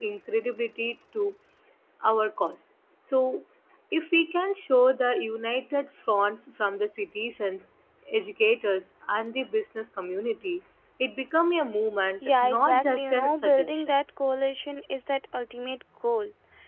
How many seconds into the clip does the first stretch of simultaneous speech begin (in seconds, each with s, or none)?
12.2 s